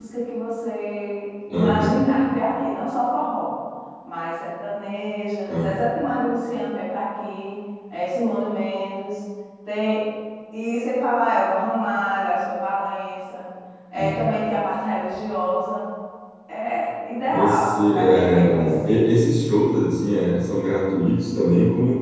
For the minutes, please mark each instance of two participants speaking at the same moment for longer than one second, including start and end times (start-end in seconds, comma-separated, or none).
17.3-19.1